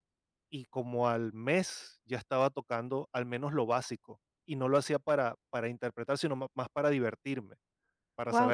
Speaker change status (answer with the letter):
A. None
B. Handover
B